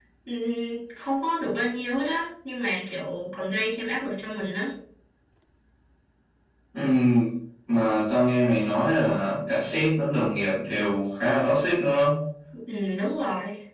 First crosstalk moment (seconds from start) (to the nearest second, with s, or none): none